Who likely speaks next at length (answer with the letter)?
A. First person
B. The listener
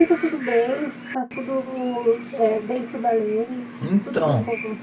A